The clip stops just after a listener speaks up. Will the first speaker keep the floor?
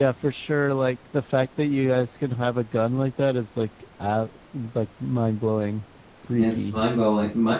No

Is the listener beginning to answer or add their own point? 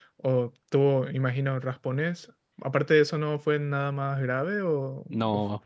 Yes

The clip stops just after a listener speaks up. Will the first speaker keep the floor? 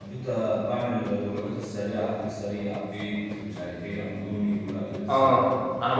No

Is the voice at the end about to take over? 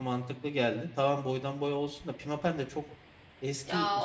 Yes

